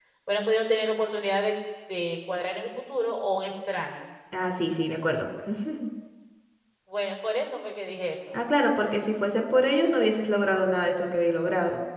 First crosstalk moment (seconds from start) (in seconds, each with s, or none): none